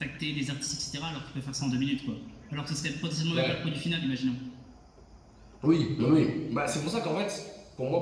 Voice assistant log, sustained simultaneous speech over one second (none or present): none